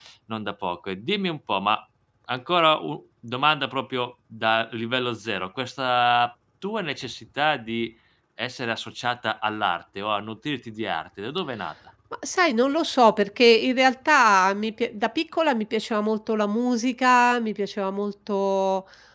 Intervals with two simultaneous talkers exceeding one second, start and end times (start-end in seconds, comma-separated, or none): none